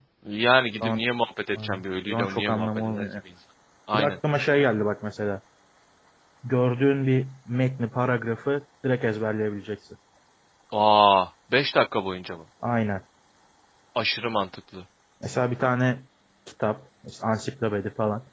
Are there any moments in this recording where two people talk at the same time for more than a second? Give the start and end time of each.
1.6-3.1

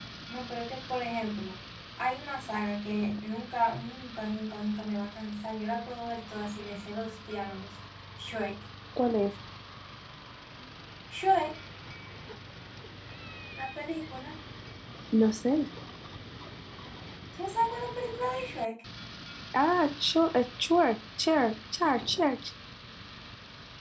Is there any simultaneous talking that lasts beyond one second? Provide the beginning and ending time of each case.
none

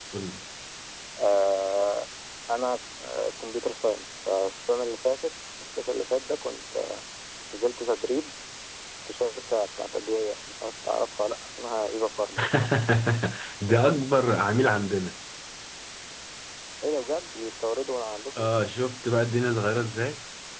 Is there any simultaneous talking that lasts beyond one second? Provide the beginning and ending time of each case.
none

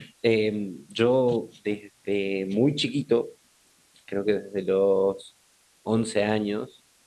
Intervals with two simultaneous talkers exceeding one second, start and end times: none

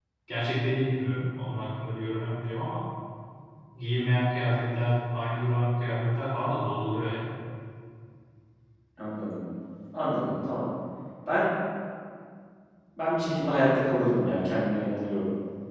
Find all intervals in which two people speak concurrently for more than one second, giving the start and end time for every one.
none

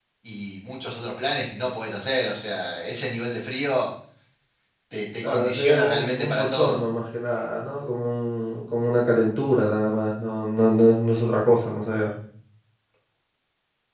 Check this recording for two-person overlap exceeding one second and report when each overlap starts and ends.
5.2-6.8

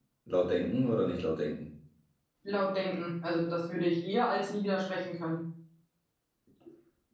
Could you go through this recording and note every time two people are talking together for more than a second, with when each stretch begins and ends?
none

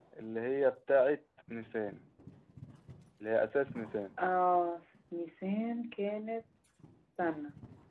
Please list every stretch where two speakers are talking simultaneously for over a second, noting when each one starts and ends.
none

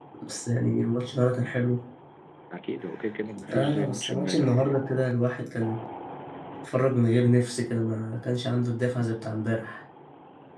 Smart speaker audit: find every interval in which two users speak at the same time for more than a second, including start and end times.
3.5-4.8

